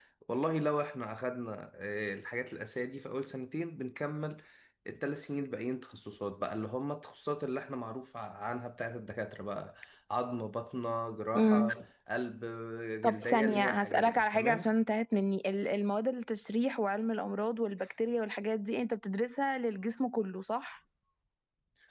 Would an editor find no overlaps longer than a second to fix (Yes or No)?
No